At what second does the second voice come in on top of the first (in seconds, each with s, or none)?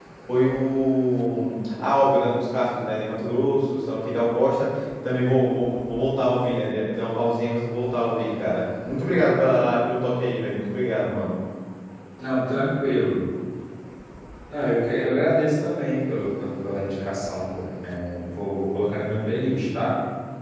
none